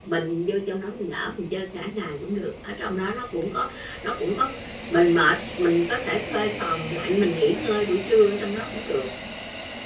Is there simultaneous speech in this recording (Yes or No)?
No